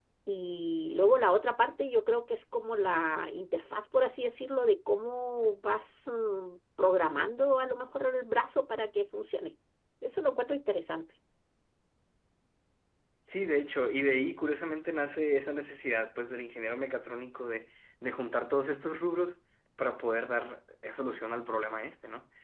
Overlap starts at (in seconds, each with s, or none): none